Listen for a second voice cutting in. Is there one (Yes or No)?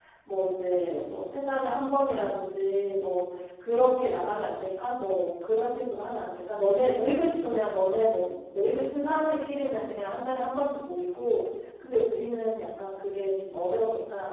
No